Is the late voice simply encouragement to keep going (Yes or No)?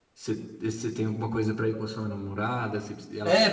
No